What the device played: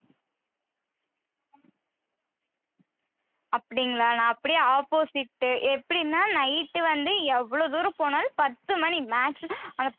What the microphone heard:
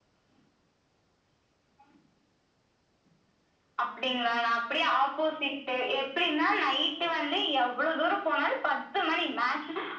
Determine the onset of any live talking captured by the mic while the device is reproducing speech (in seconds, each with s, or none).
none